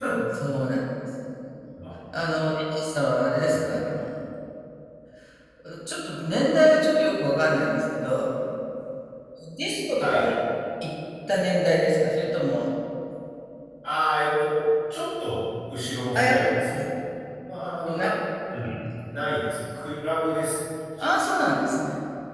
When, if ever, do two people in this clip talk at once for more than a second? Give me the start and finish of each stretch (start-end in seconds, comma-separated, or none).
none